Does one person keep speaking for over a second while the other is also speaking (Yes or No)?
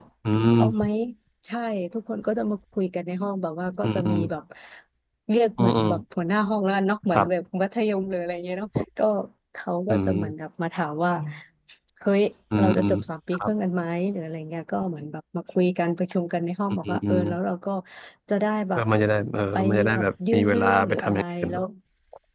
Yes